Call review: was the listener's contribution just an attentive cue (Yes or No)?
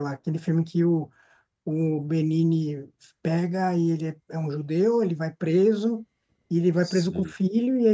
Yes